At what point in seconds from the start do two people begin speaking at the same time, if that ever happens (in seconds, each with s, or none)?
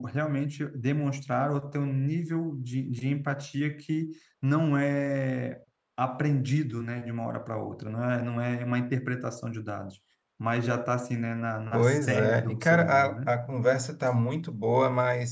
11.7 s